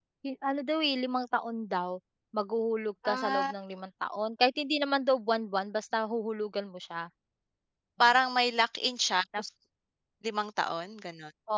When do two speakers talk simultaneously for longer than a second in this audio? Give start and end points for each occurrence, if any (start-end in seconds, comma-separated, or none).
none